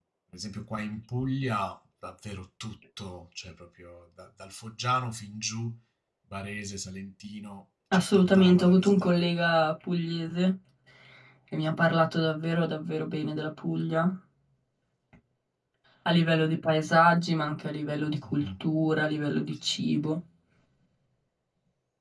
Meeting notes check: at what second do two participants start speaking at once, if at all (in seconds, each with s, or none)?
7.9 s